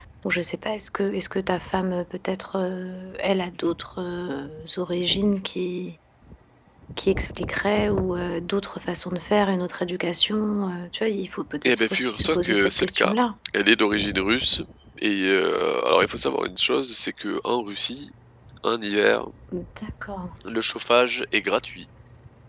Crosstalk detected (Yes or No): Yes